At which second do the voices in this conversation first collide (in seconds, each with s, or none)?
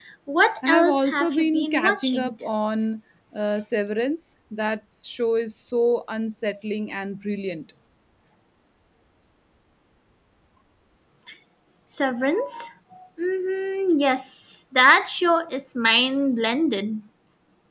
0.6 s